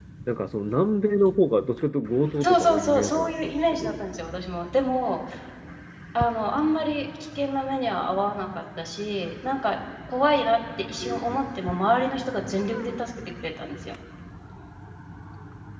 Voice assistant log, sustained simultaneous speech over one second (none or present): present